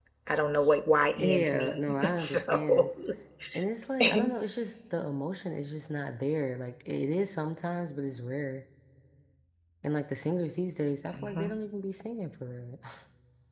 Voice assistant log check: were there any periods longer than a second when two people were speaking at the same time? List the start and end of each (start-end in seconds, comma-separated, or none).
1.2-2.9